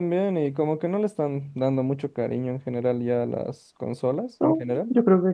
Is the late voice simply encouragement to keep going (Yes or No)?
No